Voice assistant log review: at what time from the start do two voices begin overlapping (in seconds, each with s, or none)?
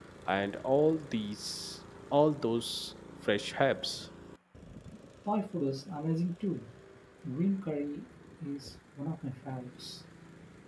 none